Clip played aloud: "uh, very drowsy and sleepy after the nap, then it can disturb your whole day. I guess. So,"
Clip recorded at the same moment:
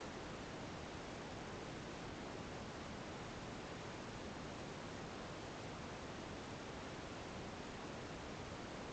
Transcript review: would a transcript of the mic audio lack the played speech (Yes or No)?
Yes